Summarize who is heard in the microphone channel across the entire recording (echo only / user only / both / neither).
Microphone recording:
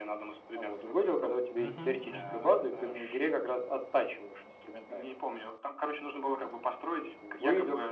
both